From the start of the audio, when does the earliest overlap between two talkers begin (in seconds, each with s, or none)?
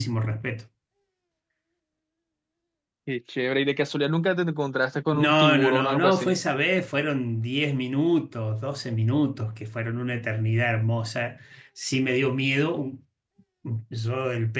5.1 s